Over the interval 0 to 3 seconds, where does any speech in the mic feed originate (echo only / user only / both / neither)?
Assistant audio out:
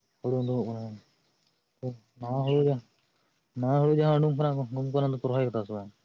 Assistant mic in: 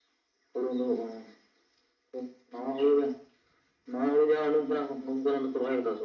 echo only